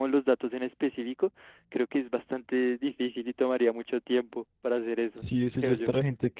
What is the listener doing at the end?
taking over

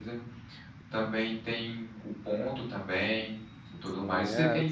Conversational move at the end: taking over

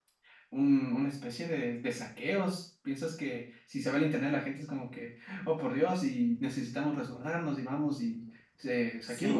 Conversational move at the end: taking over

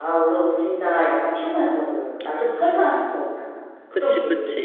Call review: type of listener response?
taking over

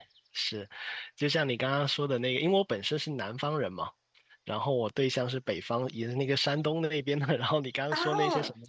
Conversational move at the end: listening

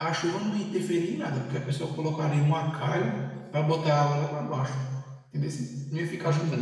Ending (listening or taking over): taking over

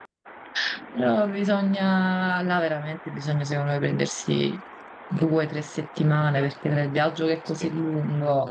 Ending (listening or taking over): listening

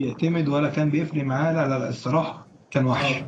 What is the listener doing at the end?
taking over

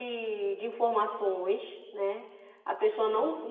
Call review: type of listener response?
listening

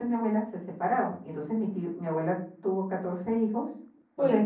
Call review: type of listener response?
listening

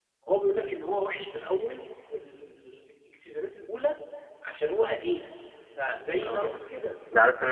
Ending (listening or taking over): taking over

